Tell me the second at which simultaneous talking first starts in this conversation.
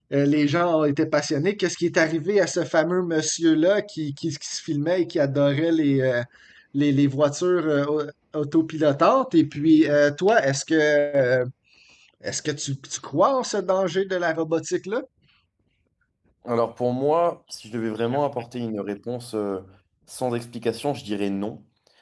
none

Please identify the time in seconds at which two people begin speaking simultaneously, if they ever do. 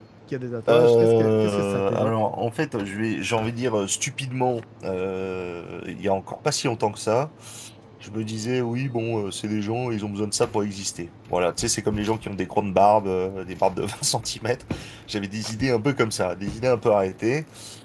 0.7 s

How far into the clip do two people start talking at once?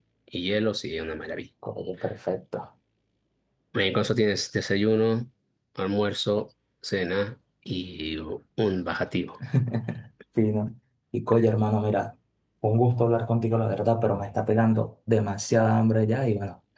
none

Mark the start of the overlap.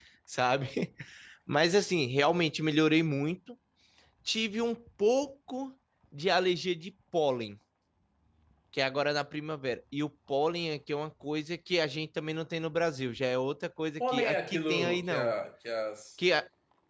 14.0 s

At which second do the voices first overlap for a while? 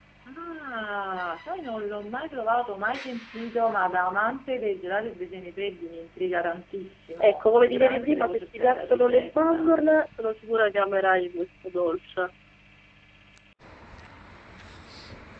7.2 s

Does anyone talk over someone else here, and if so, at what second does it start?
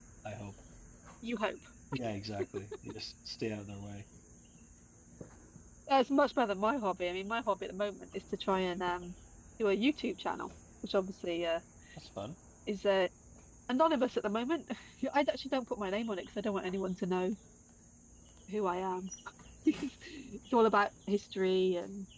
none

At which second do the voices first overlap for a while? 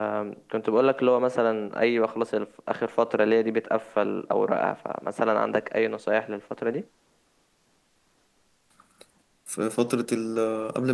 none

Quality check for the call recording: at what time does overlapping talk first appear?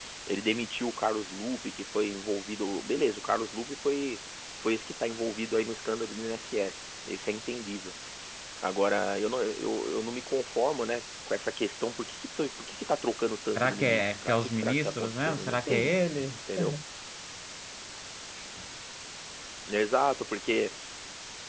13.5 s

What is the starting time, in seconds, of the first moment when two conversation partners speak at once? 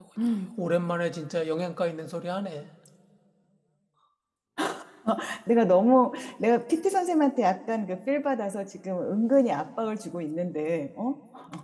none

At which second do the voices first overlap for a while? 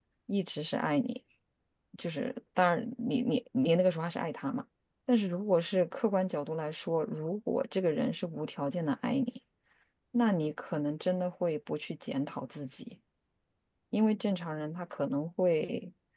none

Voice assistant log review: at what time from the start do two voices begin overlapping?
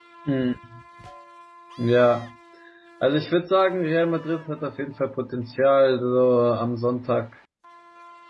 none

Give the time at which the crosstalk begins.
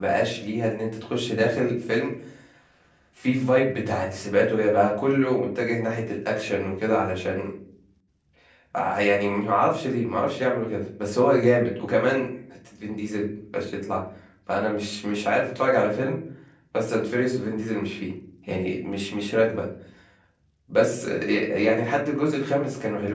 none

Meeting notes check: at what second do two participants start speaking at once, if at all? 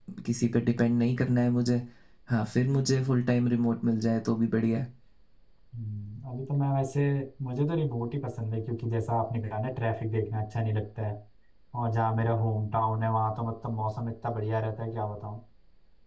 none

